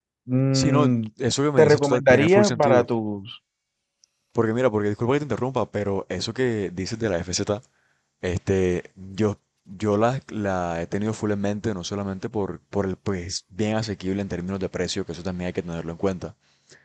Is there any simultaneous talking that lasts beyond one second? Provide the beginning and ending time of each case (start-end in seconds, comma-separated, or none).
1.6-2.9